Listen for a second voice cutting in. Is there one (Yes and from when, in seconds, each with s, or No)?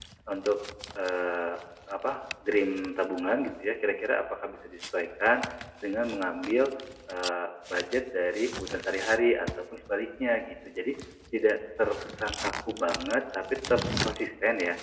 No